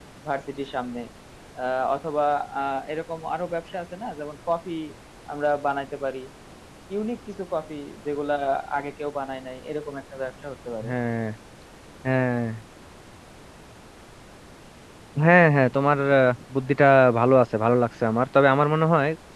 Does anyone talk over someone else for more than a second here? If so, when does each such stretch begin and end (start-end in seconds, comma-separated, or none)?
none